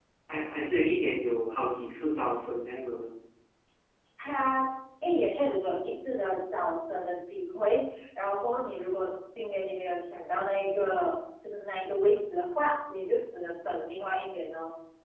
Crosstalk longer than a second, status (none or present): none